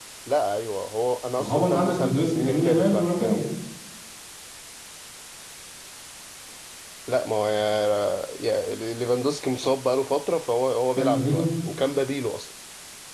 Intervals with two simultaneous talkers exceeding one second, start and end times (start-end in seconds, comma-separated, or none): 1.4-3.4